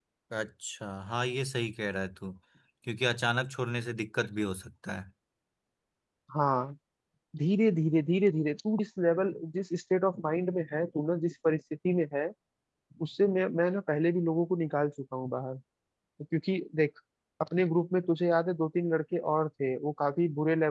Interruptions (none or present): none